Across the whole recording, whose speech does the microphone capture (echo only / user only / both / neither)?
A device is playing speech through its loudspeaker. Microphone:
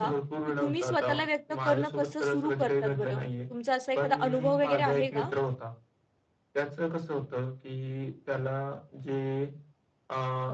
both